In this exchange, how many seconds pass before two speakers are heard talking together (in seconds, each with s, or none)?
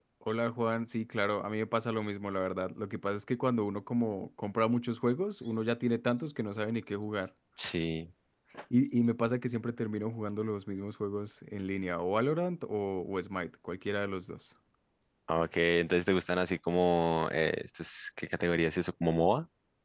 none